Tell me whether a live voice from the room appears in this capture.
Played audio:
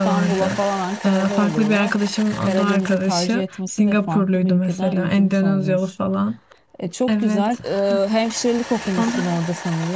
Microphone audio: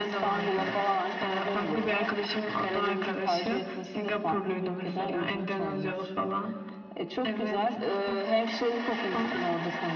No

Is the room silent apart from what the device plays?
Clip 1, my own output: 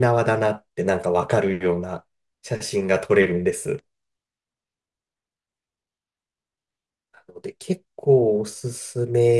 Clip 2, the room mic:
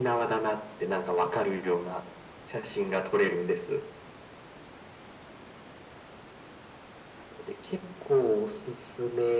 Yes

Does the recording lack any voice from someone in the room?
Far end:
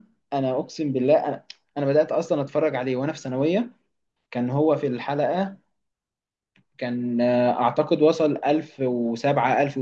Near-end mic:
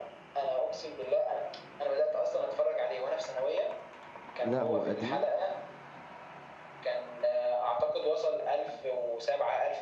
No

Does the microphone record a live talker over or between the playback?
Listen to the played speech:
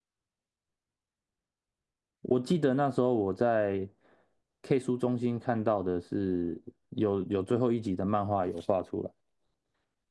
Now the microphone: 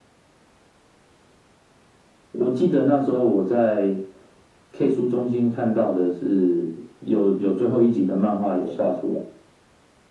No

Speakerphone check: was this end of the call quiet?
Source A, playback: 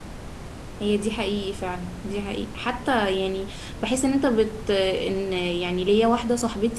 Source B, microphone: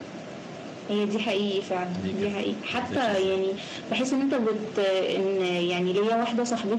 No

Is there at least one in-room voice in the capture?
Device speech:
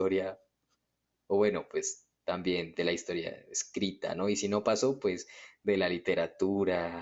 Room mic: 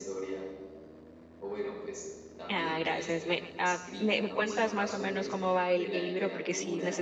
Yes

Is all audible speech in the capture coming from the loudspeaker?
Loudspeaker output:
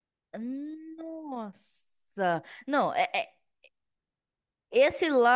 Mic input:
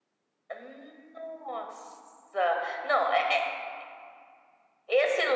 Yes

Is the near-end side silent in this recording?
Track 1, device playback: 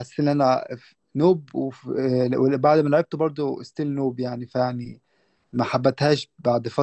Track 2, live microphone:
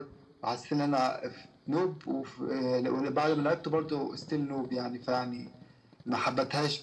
Yes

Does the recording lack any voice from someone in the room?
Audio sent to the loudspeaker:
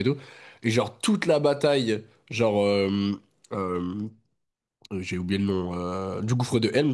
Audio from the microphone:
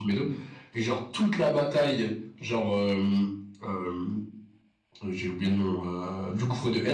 Yes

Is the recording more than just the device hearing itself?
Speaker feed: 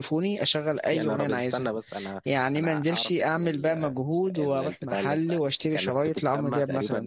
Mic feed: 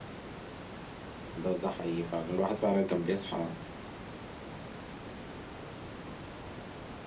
Yes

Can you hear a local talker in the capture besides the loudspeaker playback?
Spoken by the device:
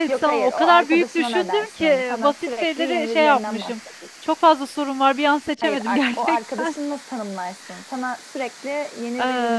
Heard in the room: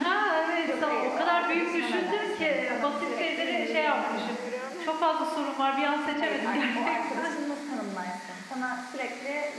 Yes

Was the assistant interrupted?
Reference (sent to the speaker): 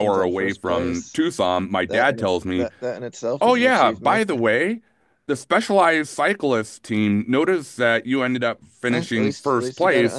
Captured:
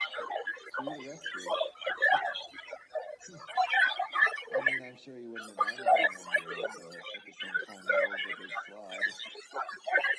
Yes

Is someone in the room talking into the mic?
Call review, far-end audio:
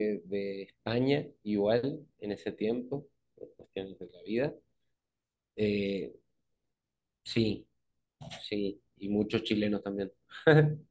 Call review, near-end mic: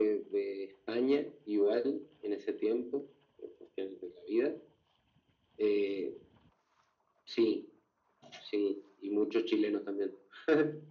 No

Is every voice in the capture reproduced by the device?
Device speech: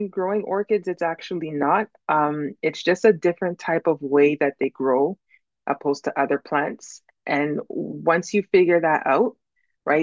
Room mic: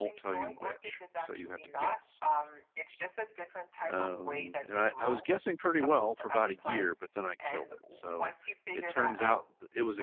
No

